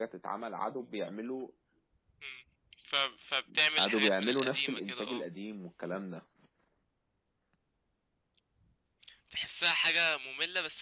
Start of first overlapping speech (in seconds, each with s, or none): 3.8 s